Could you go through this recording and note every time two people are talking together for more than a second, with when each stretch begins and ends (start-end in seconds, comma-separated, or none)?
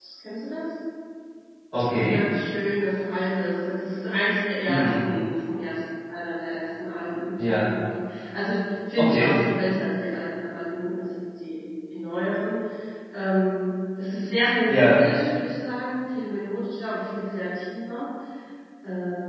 none